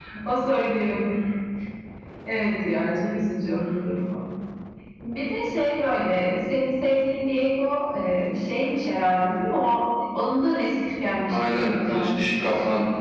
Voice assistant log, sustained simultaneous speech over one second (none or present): present